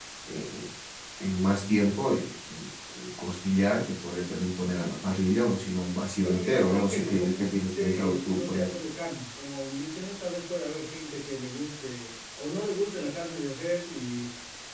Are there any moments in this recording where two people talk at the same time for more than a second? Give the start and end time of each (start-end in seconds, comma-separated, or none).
6.2-8.7